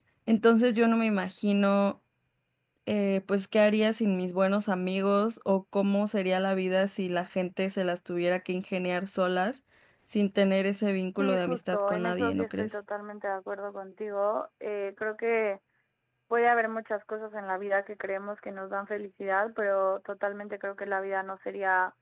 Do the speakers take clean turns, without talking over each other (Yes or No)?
No